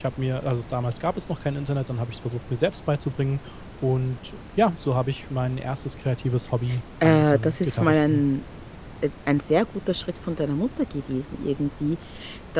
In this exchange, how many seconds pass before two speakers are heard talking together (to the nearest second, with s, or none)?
7 s